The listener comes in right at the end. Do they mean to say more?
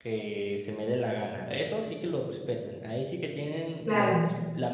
Yes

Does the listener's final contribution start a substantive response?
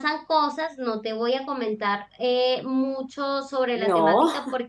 No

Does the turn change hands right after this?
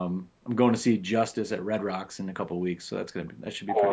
Yes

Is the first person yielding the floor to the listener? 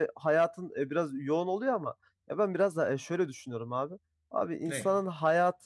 No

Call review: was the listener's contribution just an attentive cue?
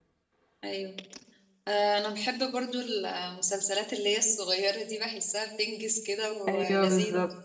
No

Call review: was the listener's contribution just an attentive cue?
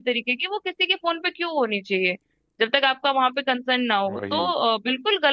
Yes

